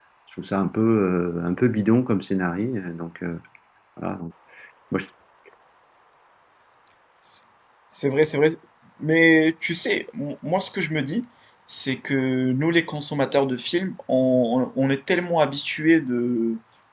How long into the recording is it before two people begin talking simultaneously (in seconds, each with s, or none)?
none